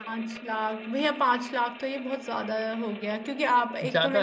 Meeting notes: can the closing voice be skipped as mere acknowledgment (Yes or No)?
Yes